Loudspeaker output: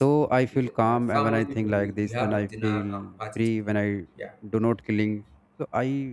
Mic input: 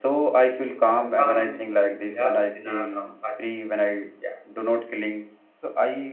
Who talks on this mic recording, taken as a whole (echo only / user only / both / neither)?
echo only